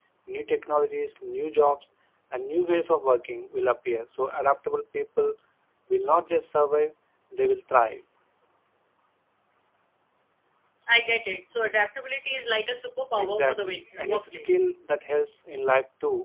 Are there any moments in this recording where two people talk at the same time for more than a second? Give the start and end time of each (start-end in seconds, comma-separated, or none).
13.2-14.6